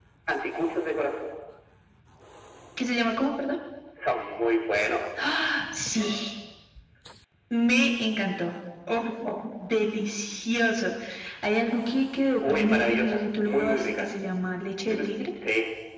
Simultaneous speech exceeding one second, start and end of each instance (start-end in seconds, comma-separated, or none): 12.4-14.1